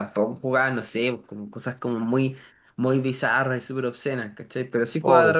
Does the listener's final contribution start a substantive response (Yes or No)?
No